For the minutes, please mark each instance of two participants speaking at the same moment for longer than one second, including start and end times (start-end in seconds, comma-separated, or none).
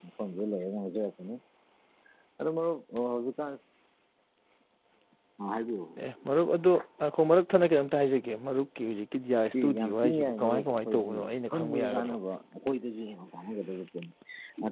9.8-12.2